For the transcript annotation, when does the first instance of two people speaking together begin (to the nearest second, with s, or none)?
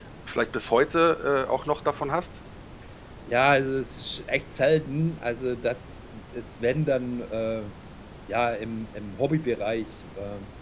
none